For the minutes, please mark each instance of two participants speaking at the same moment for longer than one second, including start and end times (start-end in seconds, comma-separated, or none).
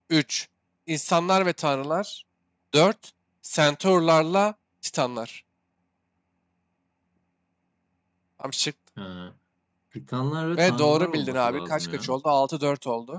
10.6-12.1